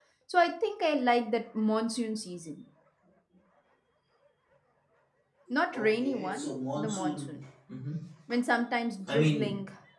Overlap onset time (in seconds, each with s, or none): 5.7 s